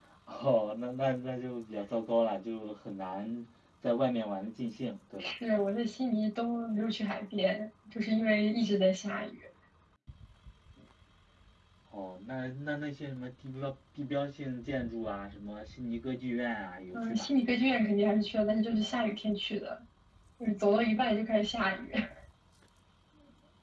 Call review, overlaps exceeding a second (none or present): none